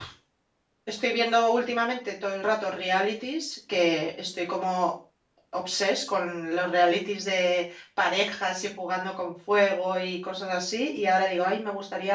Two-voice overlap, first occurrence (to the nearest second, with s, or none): none